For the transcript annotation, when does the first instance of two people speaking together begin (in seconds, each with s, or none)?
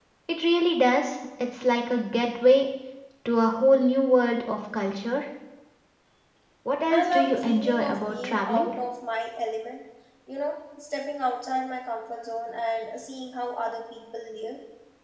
6.9 s